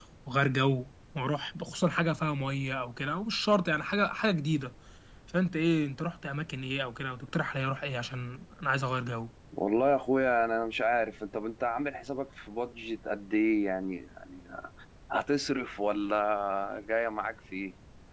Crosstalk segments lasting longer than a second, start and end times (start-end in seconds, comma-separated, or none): none